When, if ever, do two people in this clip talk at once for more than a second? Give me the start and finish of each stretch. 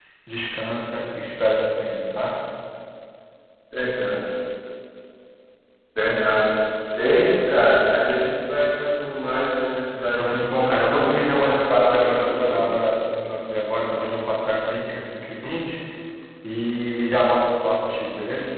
10.2-12.6

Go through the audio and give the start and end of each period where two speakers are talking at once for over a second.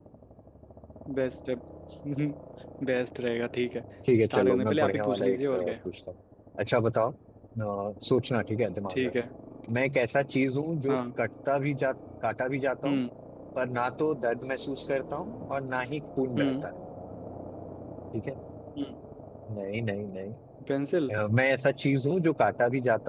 4.3-5.7

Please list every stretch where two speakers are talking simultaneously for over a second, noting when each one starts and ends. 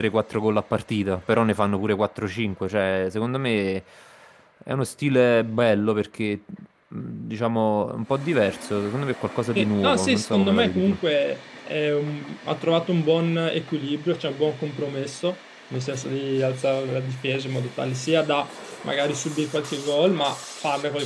9.6-11.0

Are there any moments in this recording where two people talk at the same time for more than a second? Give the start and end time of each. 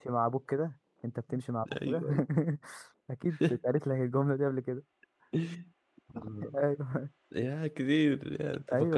none

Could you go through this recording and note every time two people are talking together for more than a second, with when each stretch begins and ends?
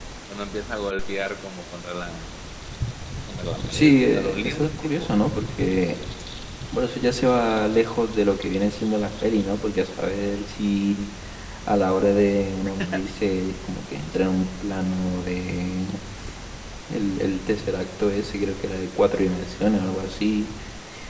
3.7-5.1

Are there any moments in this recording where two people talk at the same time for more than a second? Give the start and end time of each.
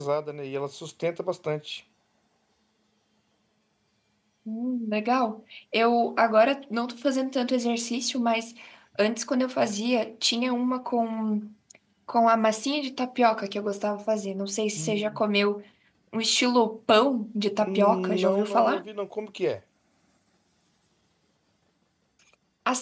17.6-18.8

